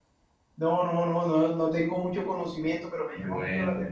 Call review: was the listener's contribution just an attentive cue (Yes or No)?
Yes